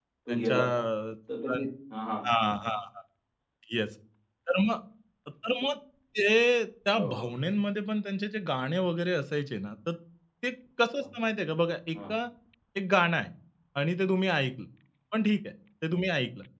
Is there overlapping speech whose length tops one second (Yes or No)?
No